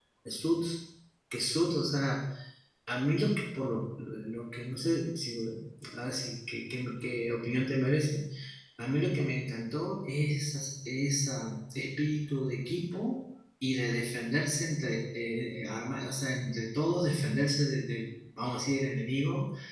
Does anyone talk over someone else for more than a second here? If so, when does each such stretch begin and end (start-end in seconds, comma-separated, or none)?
none